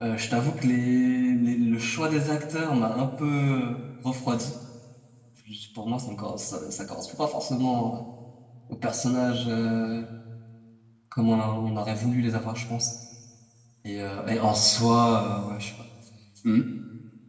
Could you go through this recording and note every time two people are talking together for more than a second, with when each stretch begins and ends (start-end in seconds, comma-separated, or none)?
none